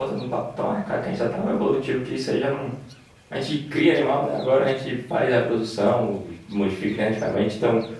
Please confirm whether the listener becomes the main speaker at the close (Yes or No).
No